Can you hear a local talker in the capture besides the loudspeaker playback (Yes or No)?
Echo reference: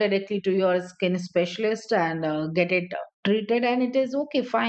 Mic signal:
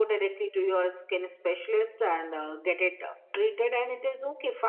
No